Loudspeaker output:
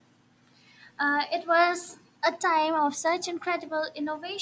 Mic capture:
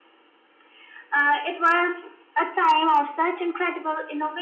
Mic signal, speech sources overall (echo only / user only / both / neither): echo only